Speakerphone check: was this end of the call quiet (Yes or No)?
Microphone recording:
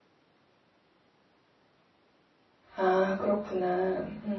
No